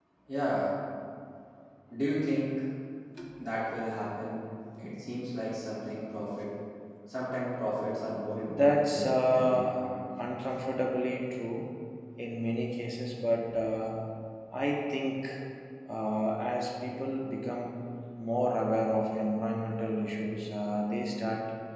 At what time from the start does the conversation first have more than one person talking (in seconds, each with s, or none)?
8.5 s